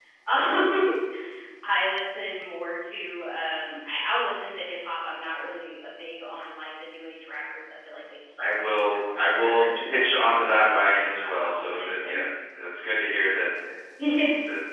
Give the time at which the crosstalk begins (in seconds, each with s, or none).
8.4 s